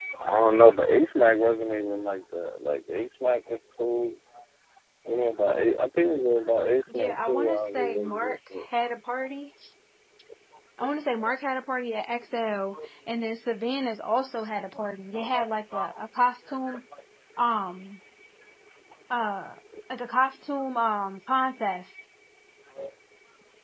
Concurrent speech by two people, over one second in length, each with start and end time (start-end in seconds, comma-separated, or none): 6.9-8.7